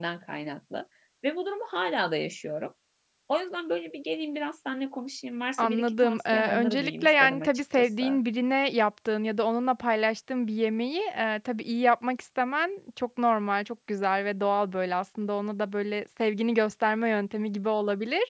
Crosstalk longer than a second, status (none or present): present